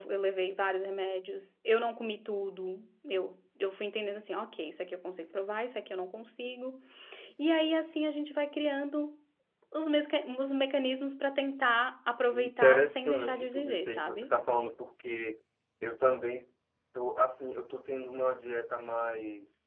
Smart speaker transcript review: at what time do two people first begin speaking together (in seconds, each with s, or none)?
12.3 s